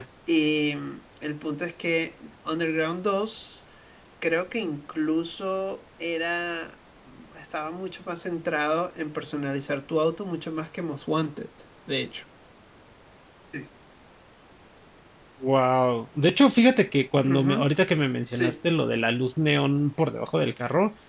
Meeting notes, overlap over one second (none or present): none